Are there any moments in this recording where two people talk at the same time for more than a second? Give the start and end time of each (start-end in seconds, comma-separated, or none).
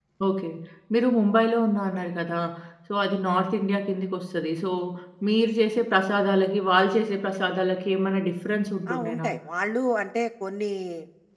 none